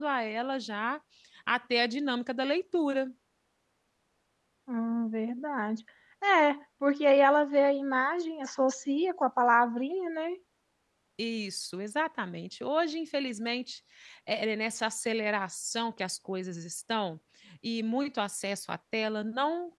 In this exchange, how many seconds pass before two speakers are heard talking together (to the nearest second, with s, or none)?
none